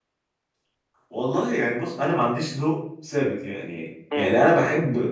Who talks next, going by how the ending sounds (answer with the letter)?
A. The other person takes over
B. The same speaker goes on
B